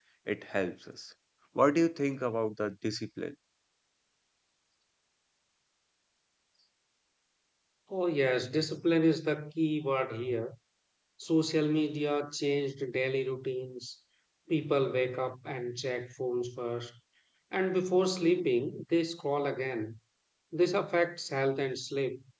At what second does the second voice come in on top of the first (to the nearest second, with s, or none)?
none